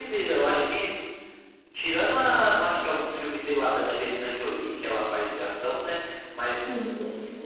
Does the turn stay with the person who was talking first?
Yes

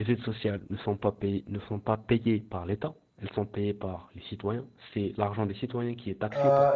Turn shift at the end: Yes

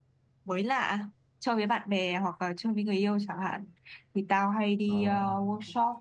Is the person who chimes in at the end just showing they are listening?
Yes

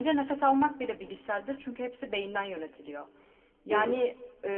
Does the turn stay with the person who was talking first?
Yes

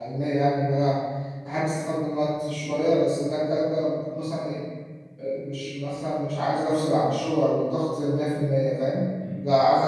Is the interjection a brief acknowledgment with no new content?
Yes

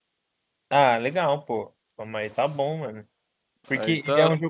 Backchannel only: Yes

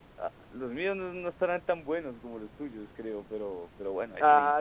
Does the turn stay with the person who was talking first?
No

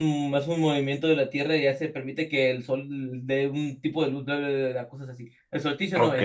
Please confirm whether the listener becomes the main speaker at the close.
Yes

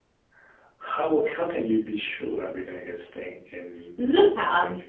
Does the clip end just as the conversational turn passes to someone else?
Yes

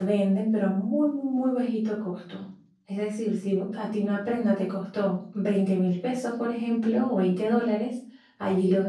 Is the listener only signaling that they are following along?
Yes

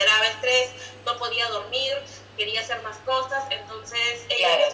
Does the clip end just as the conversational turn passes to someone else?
Yes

